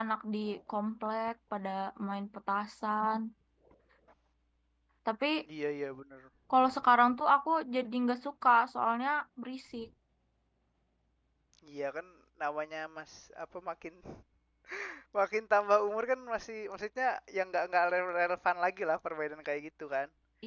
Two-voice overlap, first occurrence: none

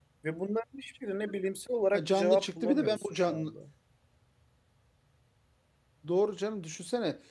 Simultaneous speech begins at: 1.9 s

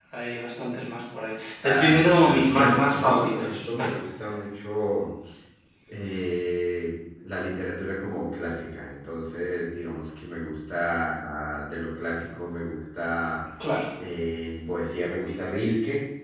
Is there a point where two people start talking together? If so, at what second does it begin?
1.6 s

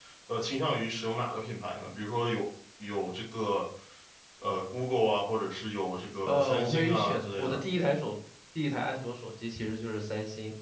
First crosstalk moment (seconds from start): 6.3 s

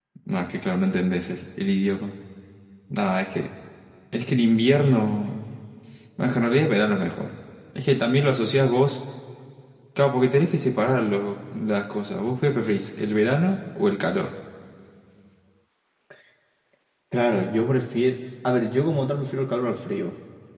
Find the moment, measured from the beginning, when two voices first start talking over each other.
none

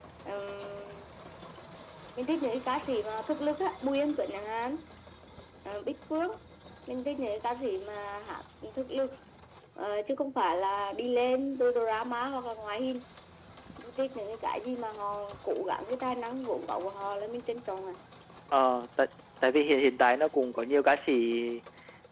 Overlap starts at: none

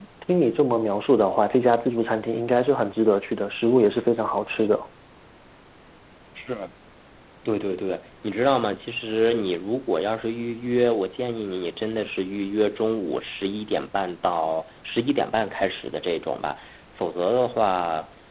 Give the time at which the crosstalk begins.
none

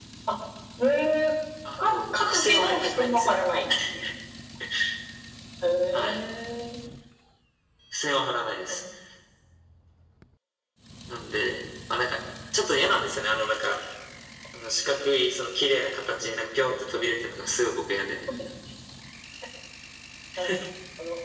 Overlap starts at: 1.8 s

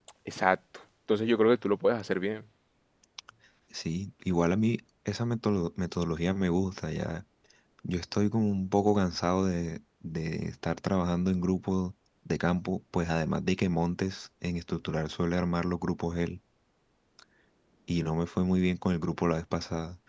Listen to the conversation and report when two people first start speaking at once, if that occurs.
none

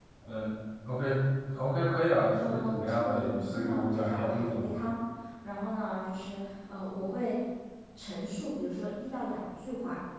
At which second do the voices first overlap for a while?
2.4 s

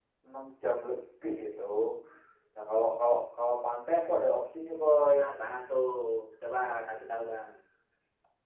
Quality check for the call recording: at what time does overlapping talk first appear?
none

